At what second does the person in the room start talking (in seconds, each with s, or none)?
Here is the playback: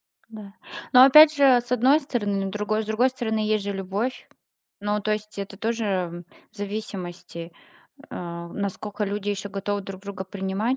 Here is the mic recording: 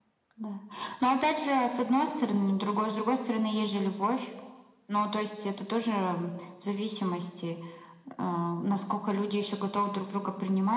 none